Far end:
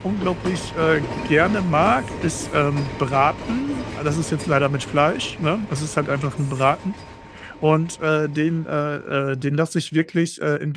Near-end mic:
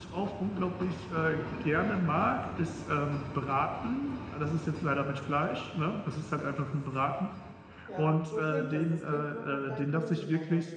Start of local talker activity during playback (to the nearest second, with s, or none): 8 s